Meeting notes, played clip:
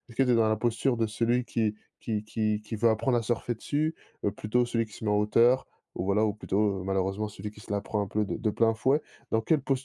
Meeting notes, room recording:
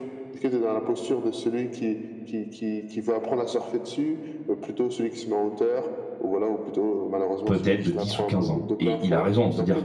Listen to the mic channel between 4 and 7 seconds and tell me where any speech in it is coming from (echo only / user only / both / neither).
echo only